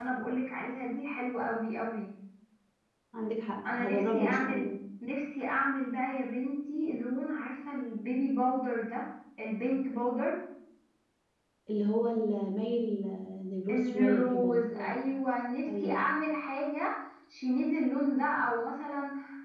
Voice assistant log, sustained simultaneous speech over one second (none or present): present